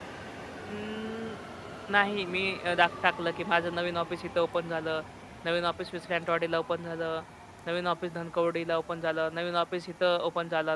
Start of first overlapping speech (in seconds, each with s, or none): none